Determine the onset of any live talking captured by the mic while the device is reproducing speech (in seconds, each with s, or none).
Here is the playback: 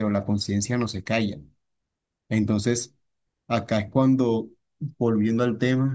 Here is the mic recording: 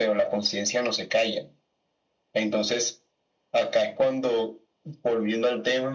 none